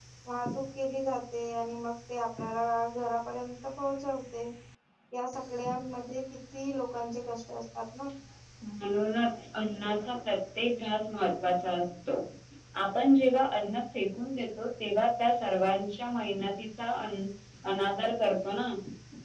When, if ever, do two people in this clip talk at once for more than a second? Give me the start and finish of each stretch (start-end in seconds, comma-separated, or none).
none